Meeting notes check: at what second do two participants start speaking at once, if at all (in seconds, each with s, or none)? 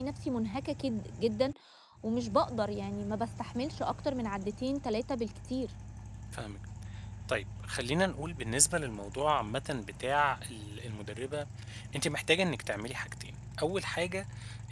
none